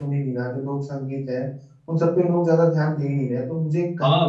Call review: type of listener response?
taking over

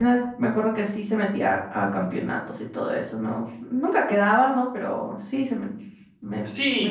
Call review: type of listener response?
taking over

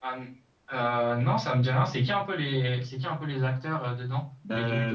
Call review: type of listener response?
taking over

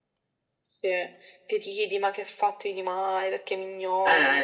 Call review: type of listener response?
taking over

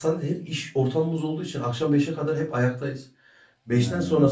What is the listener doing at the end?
listening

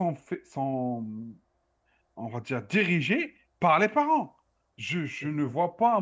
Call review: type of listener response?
listening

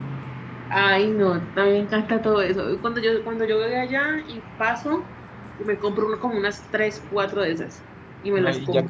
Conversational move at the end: taking over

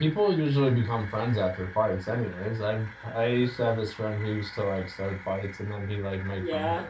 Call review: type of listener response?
taking over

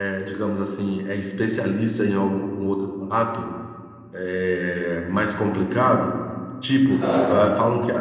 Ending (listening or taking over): listening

